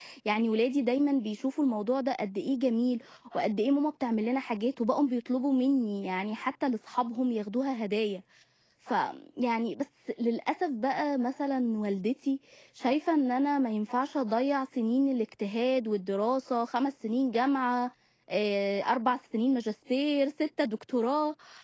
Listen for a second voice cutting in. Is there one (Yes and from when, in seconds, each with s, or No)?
No